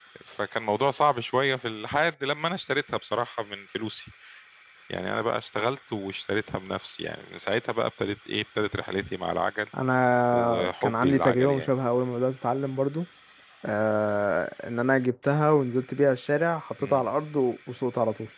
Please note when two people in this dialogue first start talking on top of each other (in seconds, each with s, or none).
10.3 s